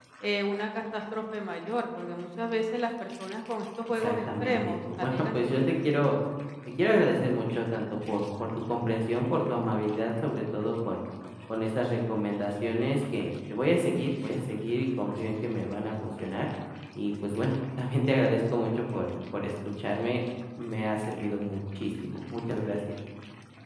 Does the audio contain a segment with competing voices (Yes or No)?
Yes